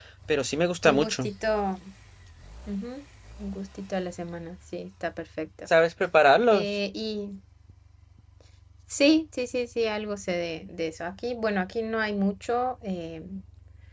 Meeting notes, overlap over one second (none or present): none